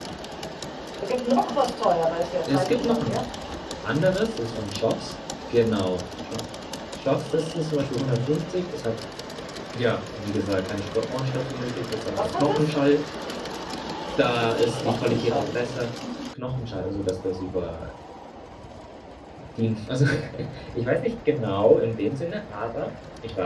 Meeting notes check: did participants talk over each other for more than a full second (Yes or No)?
Yes